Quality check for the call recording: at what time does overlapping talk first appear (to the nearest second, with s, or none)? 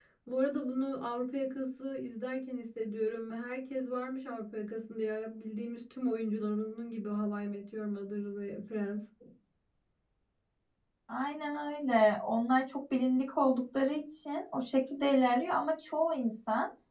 none